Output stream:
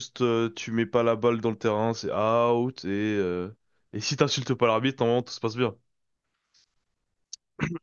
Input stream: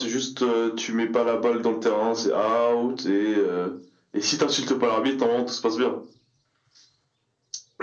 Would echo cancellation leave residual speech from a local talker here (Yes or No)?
No